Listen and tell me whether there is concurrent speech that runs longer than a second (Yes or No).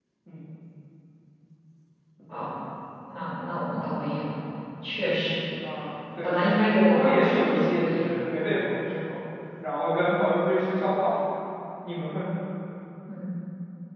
Yes